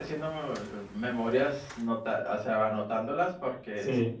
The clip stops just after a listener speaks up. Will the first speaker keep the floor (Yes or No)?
No